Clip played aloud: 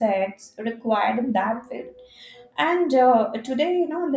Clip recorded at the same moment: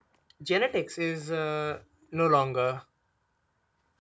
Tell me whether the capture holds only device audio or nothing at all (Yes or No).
No